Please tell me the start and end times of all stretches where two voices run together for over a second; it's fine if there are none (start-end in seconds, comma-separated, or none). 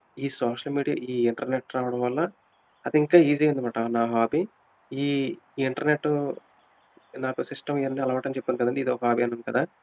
none